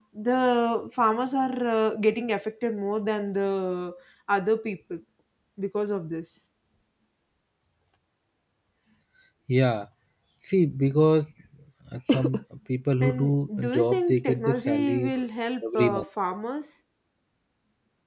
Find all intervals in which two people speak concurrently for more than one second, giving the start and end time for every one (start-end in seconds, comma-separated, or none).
13.0-15.1